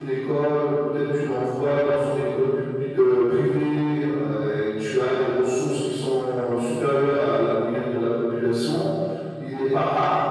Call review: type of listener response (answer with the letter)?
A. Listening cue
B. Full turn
A